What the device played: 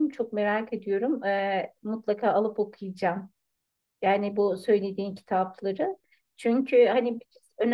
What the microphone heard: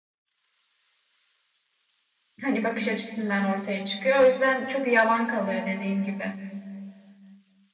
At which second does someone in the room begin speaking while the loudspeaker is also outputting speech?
2 s

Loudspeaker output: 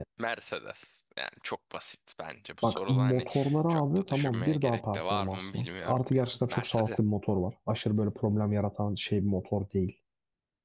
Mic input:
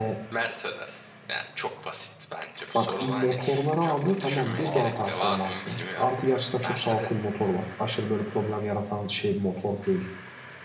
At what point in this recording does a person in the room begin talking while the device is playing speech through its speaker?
5 s

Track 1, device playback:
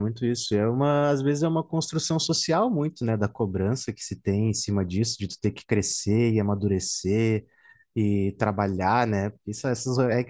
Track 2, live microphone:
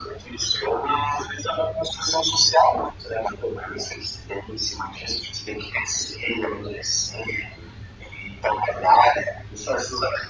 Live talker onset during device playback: none

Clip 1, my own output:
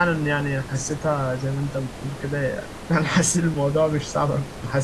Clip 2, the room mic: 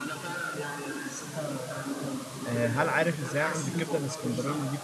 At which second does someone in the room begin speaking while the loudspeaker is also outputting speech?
2 s

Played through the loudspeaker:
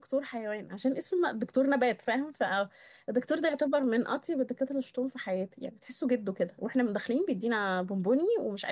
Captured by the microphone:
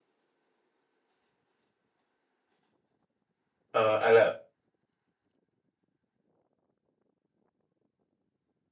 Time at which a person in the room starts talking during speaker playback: 4 s

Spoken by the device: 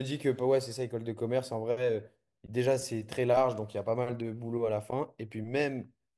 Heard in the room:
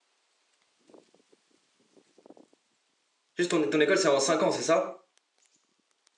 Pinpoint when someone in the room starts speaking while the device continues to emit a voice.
3 s

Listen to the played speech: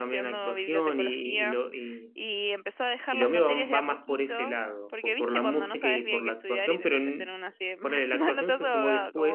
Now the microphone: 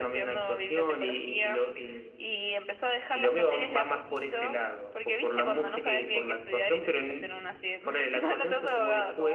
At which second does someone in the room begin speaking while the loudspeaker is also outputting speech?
none

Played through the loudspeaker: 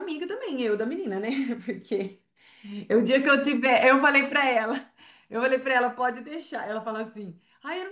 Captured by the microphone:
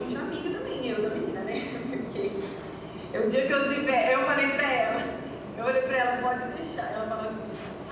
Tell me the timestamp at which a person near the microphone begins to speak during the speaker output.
none

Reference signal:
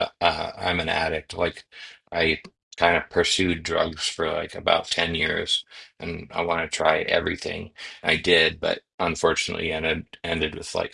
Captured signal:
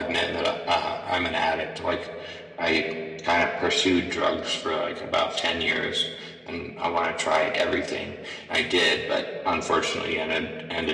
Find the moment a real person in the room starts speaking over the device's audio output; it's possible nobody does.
none

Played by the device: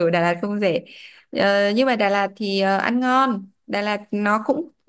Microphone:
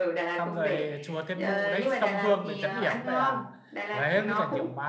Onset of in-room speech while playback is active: 0 s

